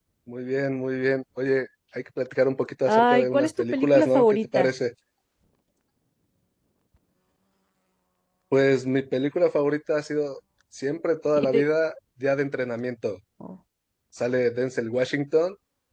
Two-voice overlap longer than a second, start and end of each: 2.9-4.7

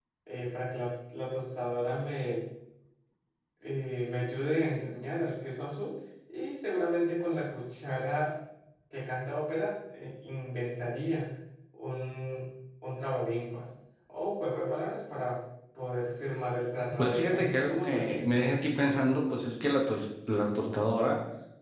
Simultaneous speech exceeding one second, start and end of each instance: 17.0-18.2

